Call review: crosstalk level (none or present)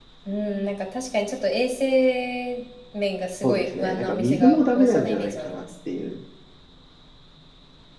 present